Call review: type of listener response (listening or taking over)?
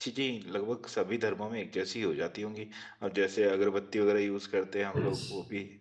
taking over